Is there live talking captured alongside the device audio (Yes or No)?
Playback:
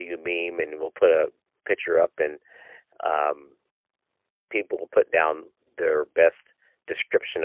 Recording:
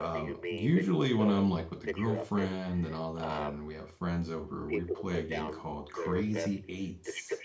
Yes